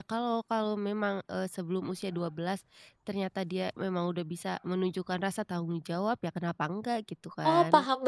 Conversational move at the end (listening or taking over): taking over